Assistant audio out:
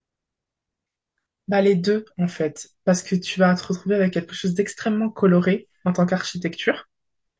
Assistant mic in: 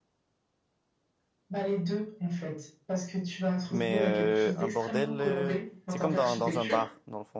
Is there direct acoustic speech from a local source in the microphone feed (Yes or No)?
Yes